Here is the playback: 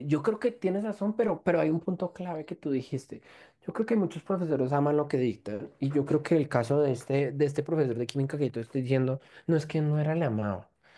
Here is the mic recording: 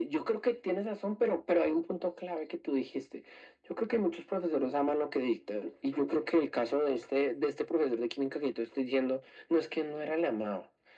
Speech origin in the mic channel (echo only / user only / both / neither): echo only